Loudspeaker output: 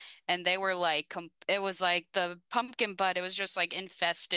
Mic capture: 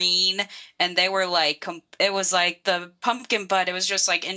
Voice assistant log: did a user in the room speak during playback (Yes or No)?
No